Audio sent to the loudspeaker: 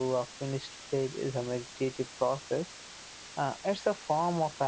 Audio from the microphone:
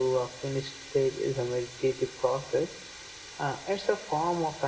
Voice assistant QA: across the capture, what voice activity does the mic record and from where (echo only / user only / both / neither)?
echo only